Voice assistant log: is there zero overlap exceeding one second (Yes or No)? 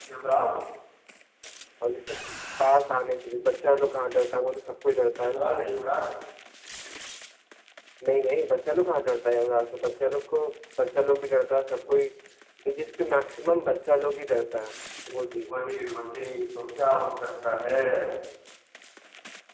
Yes